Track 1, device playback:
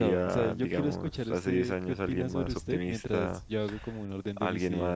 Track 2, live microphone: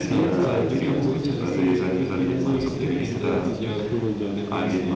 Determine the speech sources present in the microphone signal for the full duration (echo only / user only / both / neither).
both